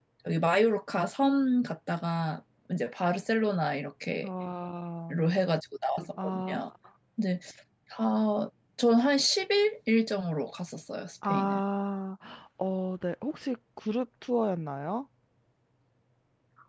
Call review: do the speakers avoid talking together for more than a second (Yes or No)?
Yes